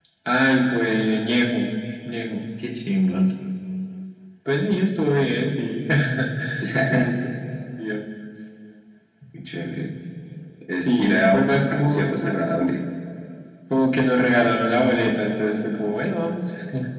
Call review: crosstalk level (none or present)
present